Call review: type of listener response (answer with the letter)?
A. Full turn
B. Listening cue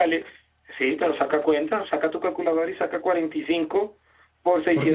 A